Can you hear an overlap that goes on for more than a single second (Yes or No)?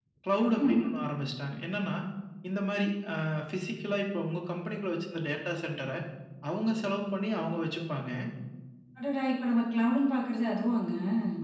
No